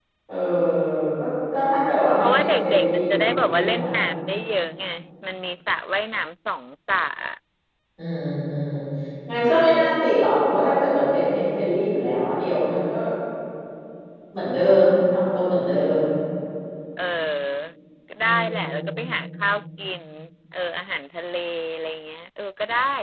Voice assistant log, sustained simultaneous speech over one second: present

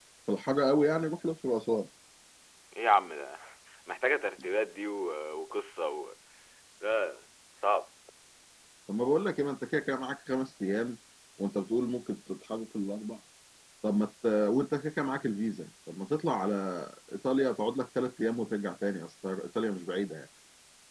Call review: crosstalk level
none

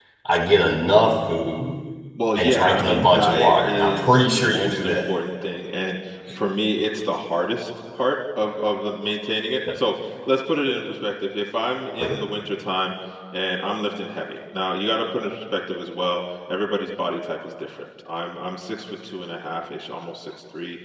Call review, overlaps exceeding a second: present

